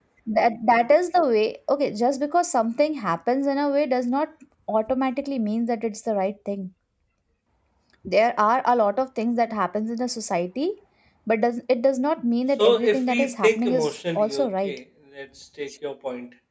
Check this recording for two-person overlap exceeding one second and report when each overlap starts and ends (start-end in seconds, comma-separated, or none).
12.6-14.8